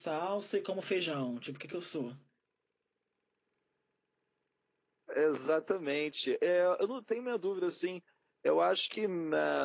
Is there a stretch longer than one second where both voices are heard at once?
No

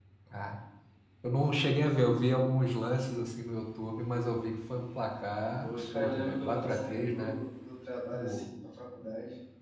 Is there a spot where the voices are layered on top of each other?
Yes, from 5.6 s

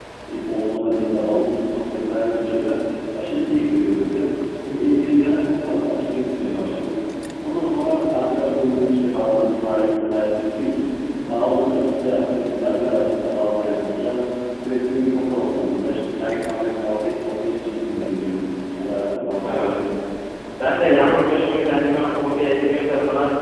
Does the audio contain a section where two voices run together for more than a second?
No

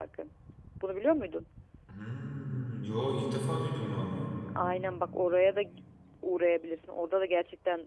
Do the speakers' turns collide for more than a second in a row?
No

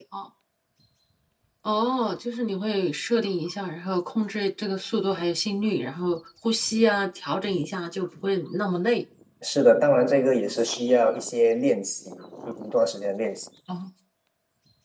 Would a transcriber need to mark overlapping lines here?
No

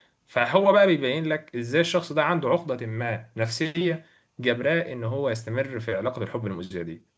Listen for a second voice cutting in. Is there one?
No

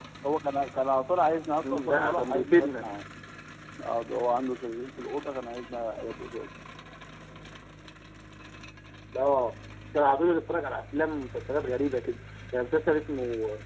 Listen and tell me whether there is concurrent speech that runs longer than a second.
Yes, from 1.6 s

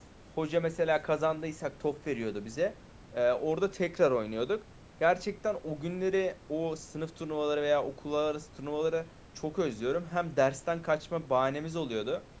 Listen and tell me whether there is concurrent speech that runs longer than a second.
No

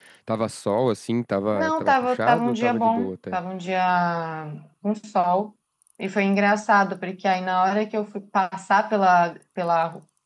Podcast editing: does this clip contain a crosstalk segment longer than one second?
Yes, from 1.5 s

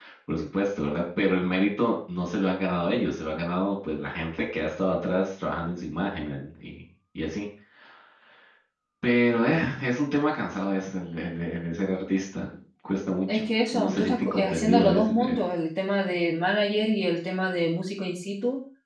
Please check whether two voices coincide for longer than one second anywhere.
Yes, from 13.3 s

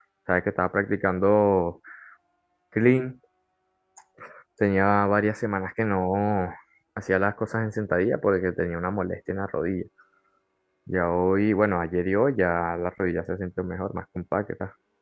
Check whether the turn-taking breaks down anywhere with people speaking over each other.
No

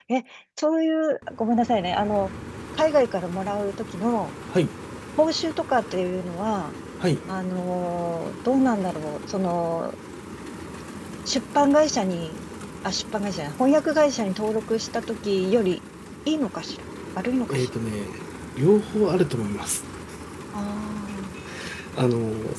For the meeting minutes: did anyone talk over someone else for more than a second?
No

